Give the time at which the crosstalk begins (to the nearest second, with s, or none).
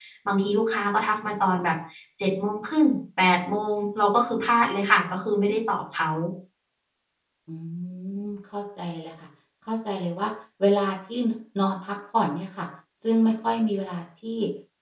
none